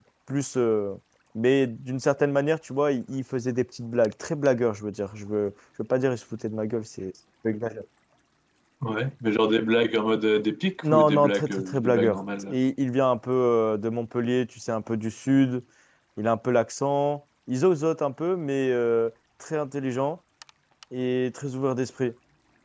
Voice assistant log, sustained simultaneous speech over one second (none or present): present